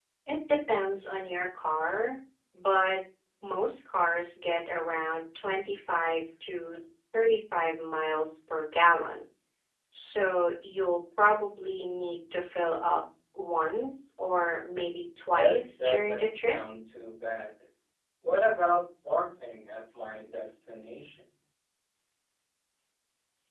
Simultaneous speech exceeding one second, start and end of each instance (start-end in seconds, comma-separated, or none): 15.3-16.6